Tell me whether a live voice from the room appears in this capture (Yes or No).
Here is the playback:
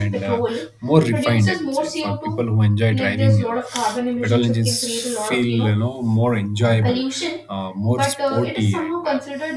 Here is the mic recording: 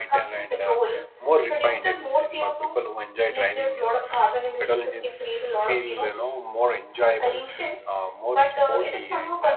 No